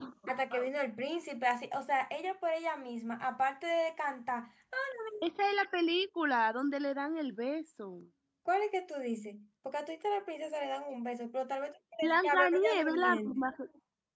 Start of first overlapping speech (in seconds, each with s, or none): 12.0 s